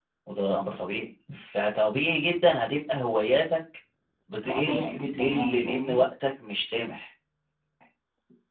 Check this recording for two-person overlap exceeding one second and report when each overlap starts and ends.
4.4-6.0

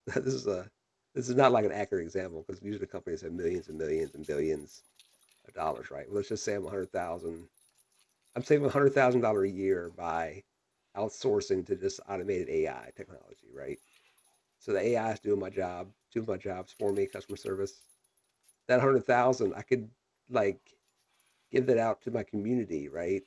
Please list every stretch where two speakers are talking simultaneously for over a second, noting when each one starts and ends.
none

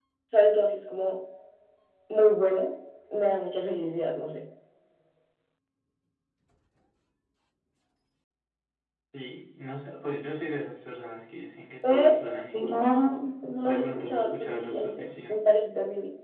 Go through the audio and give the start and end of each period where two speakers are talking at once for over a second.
13.7-15.3

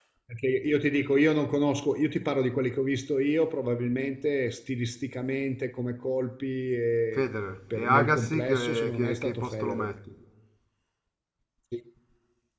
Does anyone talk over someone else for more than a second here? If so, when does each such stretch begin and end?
7.7-9.9

